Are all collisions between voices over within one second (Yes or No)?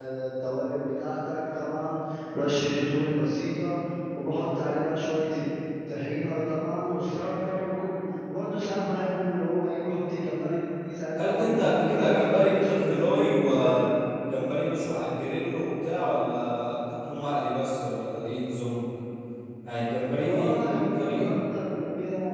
No